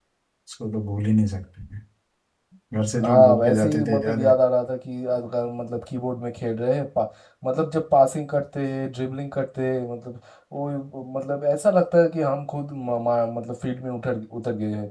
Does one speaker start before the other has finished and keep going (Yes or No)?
Yes